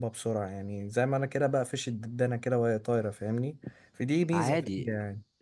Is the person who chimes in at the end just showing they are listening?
No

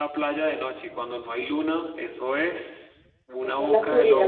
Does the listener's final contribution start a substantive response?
Yes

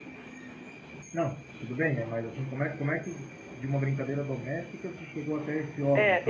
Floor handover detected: Yes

